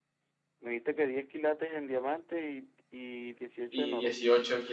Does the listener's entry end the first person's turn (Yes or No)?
Yes